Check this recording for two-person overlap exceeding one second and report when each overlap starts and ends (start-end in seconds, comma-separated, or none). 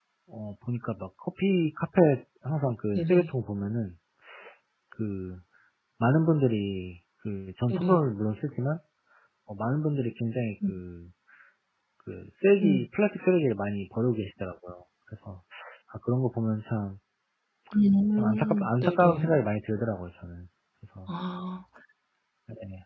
18.2-19.4